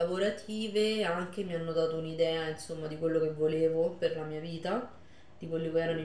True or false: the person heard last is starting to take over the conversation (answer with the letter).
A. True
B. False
B